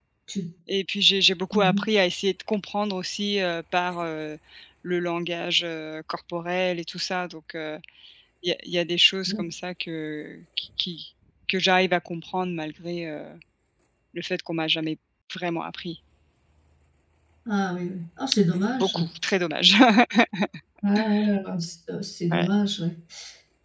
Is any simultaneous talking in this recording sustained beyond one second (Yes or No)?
No